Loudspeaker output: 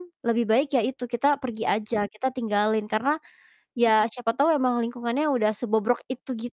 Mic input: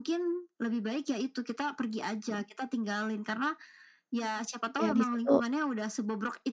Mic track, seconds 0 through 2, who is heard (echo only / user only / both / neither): echo only